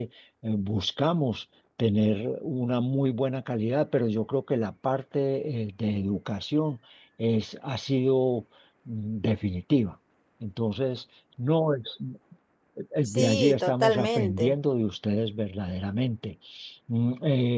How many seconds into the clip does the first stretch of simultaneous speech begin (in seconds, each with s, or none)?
13.0 s